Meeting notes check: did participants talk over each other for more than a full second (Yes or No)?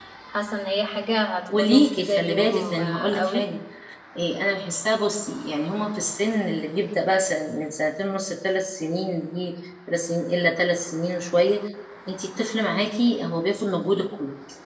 Yes